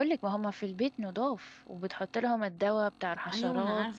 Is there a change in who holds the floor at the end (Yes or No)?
Yes